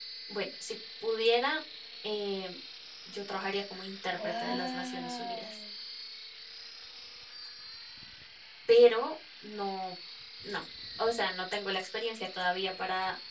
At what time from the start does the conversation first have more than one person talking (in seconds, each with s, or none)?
4.1 s